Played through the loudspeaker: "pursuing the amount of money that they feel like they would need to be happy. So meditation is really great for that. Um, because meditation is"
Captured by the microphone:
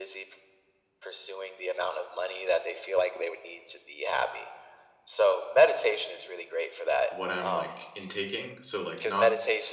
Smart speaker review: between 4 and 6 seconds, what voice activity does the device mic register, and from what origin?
echo only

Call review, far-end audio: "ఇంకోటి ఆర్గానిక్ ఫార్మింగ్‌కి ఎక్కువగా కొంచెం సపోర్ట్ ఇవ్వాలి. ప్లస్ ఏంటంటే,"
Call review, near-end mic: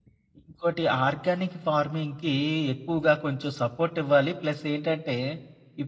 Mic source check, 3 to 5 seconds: echo only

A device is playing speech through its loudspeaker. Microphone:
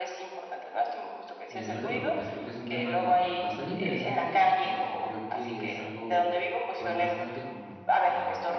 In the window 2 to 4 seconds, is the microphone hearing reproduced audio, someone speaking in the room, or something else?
both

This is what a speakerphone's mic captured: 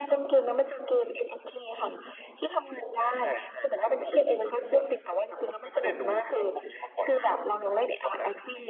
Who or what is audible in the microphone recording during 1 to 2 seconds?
echo only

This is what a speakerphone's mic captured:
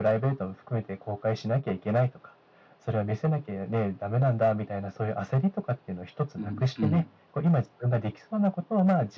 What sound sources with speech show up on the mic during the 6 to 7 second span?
both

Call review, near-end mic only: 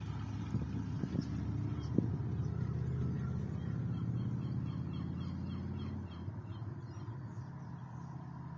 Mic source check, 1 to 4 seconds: neither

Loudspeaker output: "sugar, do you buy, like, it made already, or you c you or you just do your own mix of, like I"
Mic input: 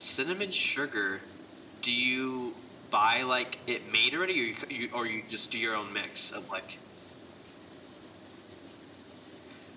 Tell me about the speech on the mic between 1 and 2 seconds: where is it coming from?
echo only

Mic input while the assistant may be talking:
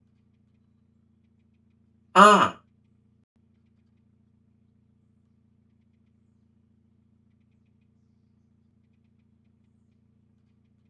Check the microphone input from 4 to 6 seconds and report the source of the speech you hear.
neither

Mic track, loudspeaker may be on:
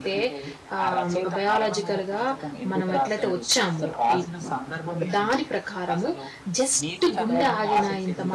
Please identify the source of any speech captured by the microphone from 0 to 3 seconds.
both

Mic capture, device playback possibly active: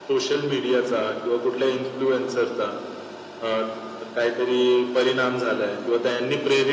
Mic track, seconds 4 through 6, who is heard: echo only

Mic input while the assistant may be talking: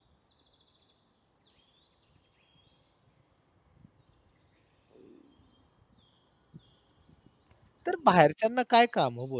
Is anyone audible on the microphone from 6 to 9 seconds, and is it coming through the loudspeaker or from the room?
user only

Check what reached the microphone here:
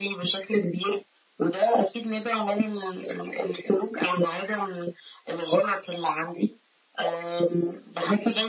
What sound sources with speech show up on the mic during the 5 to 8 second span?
echo only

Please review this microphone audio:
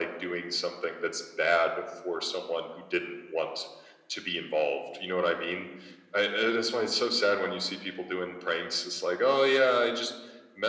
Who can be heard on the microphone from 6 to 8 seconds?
echo only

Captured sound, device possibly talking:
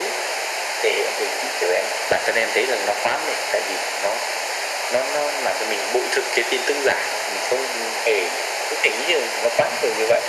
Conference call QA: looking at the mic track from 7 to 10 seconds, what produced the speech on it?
echo only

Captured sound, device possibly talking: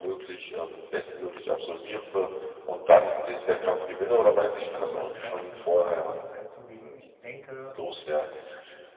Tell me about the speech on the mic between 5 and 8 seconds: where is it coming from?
both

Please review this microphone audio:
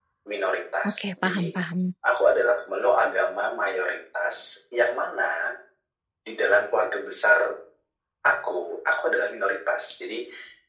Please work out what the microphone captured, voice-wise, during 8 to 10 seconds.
echo only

